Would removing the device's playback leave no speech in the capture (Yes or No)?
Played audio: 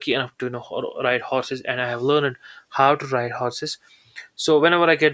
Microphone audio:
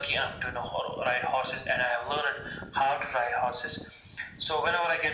Yes